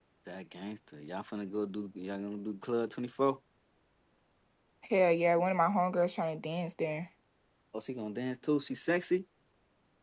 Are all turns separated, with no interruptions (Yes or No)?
Yes